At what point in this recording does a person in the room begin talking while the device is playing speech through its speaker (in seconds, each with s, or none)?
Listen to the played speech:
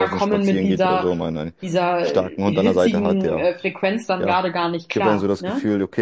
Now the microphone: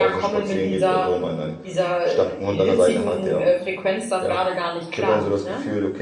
none